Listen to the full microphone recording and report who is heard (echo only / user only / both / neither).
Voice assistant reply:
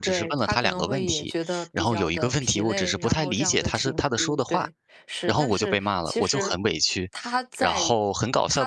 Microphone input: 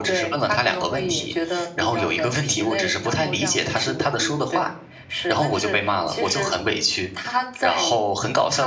echo only